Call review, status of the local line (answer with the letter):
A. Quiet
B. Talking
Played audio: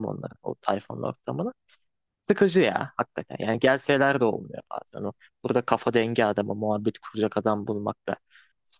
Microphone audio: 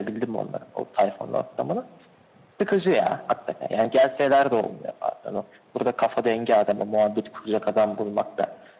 A